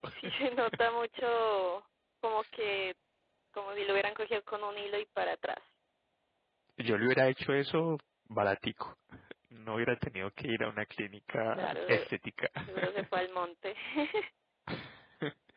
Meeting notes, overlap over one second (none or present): none